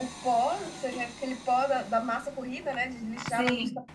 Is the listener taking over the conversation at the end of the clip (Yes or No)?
No